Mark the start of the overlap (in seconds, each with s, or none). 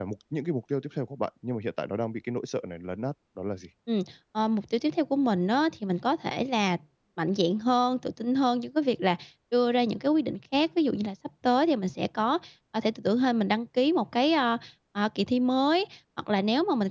none